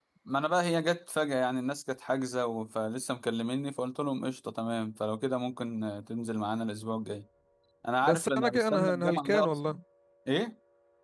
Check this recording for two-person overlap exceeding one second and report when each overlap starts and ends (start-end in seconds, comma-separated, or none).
8.0-9.7